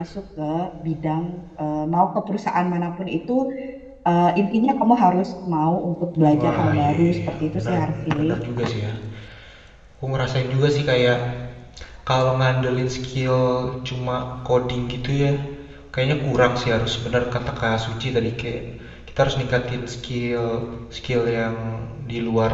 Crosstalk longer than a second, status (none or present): present